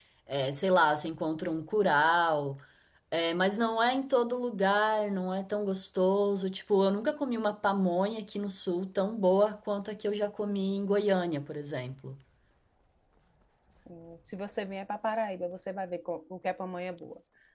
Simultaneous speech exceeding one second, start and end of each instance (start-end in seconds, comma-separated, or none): none